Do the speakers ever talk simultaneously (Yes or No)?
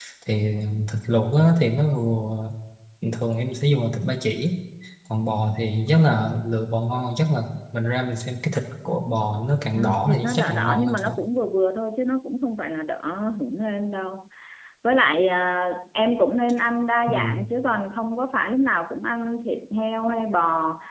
Yes